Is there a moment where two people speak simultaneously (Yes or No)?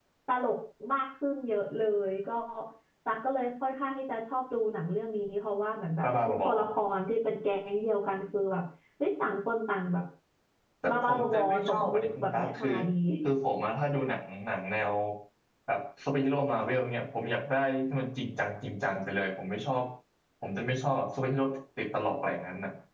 Yes